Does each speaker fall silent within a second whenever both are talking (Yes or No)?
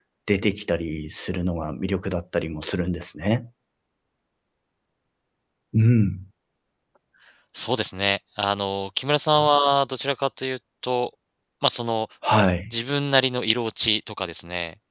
Yes